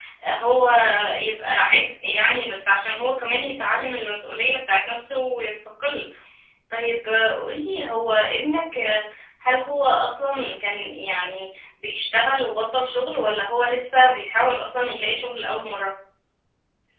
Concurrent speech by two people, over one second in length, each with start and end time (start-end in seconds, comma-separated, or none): none